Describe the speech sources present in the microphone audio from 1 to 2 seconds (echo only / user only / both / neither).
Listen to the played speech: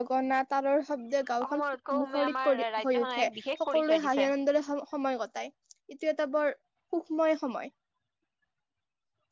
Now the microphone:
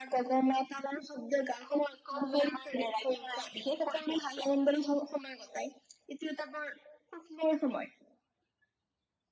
echo only